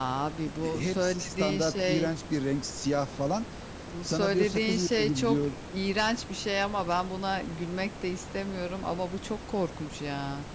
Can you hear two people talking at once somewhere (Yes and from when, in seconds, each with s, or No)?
Yes, from 0.6 s